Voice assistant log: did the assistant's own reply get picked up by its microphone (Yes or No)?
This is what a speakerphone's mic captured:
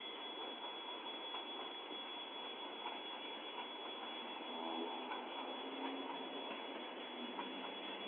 No